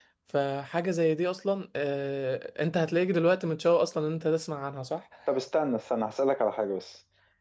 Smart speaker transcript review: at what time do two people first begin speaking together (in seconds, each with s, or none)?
none